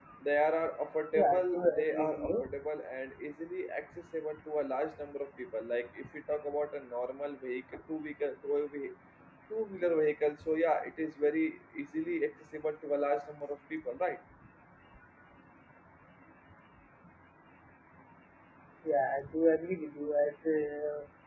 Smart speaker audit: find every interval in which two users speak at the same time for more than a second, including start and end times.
1.1-2.5

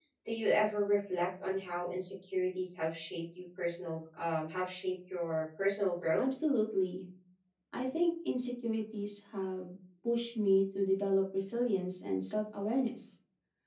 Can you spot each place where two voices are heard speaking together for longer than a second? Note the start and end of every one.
none

